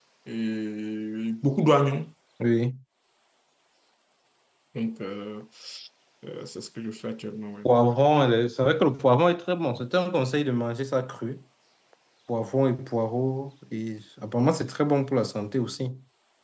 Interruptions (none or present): none